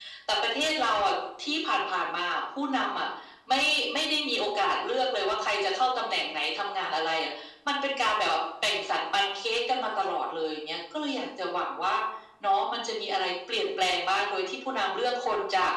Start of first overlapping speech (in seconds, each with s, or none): none